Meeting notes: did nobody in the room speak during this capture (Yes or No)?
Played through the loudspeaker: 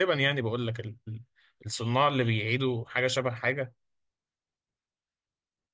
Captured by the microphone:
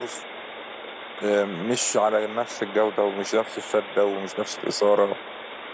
No